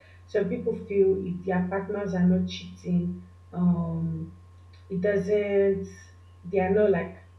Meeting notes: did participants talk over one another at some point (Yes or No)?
No